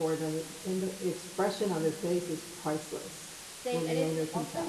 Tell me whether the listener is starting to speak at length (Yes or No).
Yes